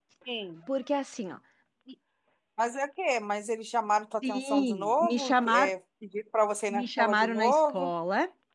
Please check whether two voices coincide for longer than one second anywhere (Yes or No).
Yes